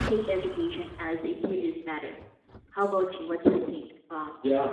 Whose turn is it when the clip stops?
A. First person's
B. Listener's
B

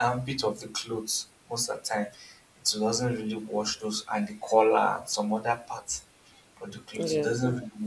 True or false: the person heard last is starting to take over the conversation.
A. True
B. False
B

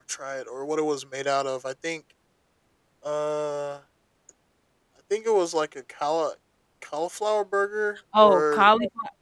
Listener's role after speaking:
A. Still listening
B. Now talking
B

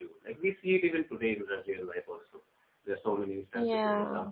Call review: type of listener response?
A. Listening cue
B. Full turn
A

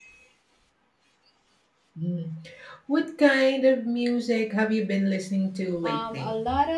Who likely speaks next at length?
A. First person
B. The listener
B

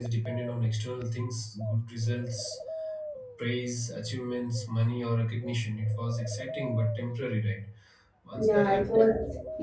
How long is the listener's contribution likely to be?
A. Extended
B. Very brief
A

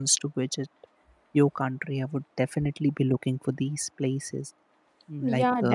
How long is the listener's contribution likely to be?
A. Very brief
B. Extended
B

